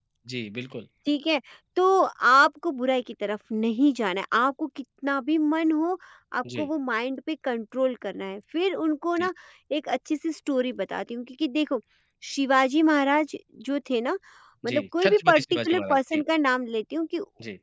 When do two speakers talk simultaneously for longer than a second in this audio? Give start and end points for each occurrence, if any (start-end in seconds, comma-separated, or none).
14.7-16.2